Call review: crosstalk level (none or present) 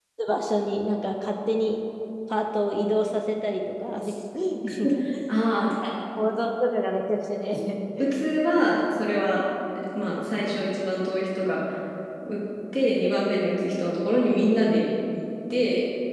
none